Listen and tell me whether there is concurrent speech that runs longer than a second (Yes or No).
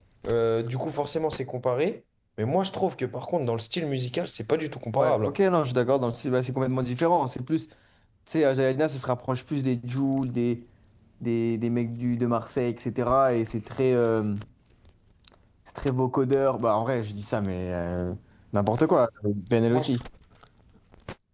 No